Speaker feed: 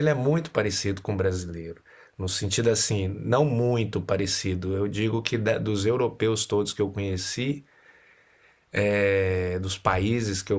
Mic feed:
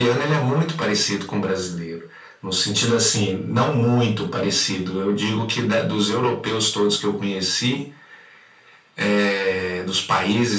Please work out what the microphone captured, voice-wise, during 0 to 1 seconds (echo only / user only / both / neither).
echo only